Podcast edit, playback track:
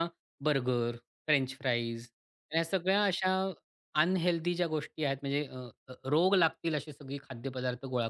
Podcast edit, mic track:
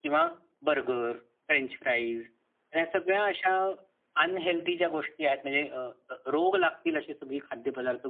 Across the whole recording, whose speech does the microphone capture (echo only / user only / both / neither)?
echo only